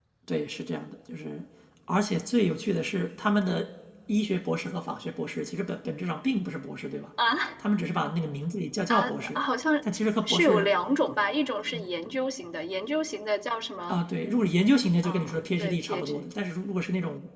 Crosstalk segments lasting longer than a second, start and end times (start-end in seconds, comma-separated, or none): 15.0-16.2